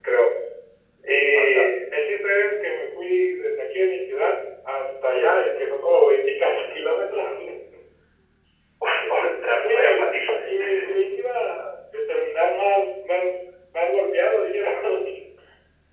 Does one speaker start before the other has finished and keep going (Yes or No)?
Yes